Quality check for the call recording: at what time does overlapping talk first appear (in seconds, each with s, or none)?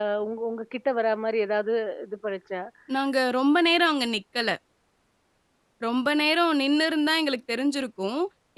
none